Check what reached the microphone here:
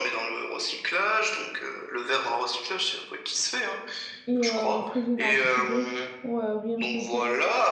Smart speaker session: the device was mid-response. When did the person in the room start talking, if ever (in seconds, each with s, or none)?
4.2 s